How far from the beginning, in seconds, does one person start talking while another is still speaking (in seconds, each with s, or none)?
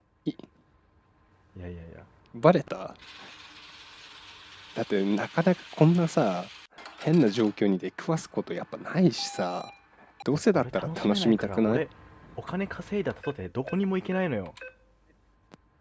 10.5 s